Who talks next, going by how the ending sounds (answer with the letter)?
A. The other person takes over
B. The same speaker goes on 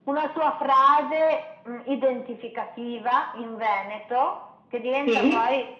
B